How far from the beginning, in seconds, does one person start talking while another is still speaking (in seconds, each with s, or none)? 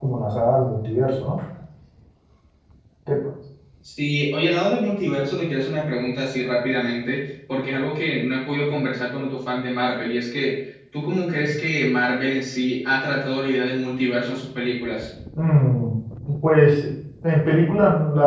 none